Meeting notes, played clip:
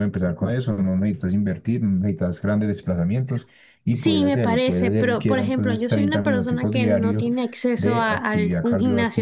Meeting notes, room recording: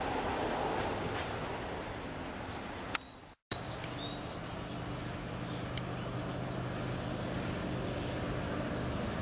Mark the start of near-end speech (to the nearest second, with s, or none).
none